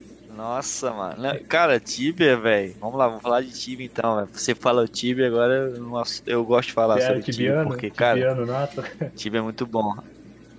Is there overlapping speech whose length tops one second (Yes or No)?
Yes